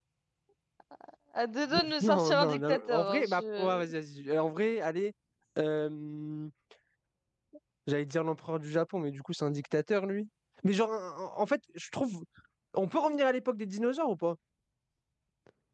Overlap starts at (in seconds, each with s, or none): 2.0 s